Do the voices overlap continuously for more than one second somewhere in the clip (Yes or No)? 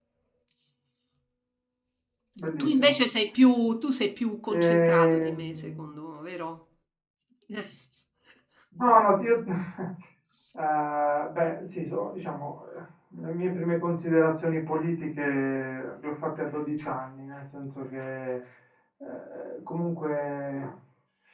Yes